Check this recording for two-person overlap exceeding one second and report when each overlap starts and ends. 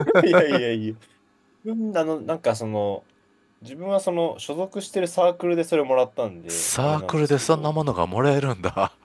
6.5-7.7

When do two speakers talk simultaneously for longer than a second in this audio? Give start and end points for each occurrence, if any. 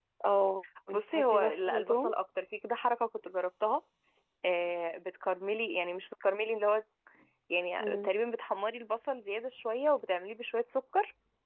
0.9-2.1

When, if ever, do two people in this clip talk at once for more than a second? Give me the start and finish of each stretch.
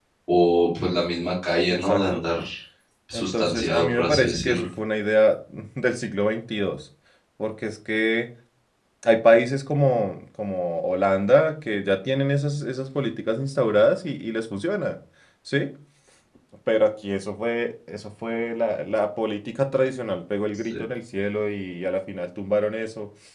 3.1-4.7

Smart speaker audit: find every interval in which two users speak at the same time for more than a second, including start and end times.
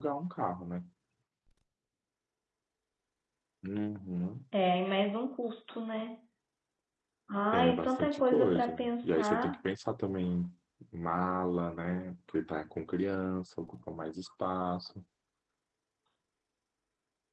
7.5-9.6

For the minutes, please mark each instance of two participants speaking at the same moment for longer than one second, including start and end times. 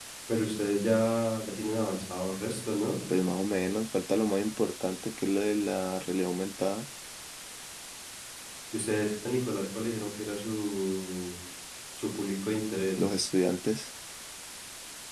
none

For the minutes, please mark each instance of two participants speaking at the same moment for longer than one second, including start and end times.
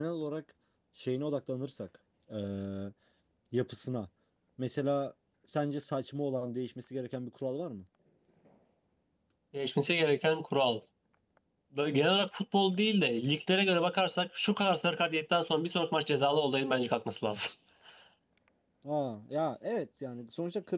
none

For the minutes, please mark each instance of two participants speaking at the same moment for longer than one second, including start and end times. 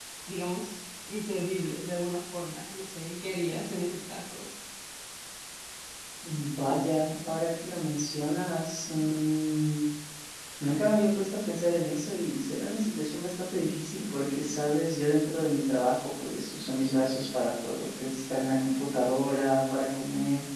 none

